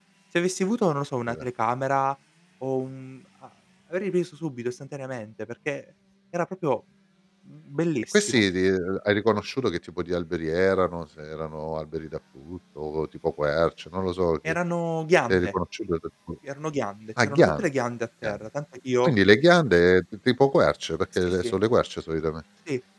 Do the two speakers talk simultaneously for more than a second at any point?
No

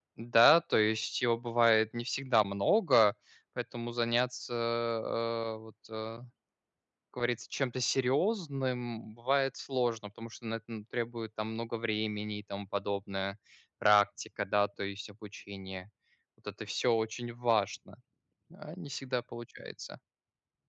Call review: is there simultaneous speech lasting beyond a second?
No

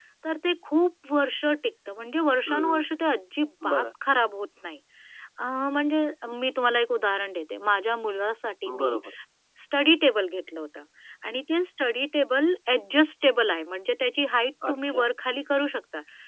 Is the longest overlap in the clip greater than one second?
No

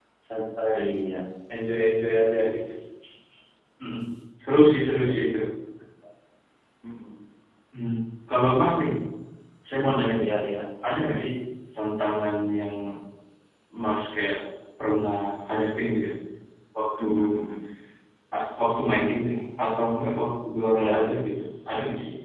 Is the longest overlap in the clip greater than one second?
No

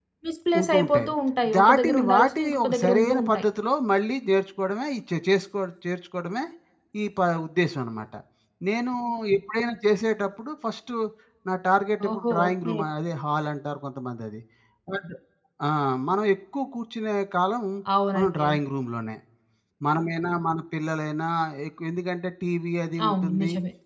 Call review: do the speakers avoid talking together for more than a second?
No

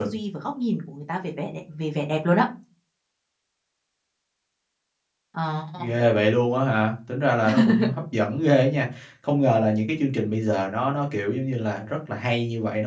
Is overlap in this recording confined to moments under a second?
Yes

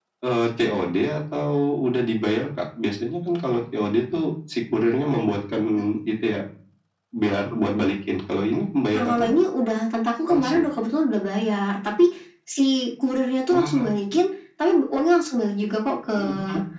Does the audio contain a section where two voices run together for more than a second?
No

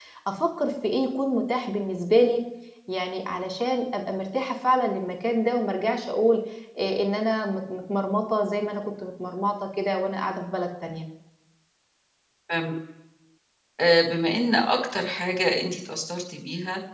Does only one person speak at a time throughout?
Yes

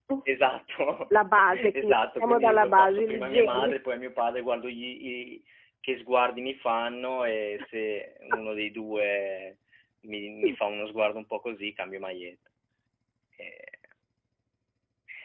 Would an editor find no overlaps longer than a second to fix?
No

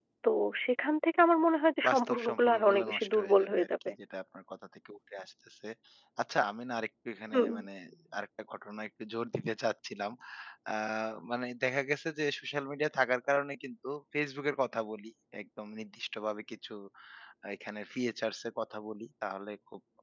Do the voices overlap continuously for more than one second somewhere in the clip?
Yes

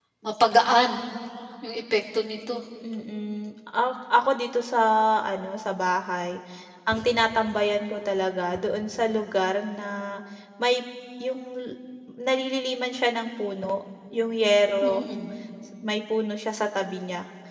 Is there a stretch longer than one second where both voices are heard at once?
No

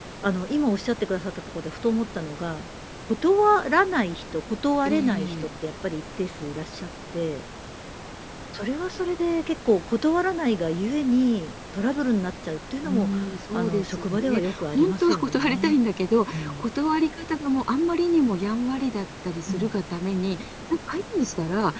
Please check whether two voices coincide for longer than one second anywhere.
Yes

